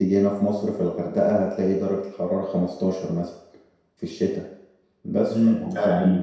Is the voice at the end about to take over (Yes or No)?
Yes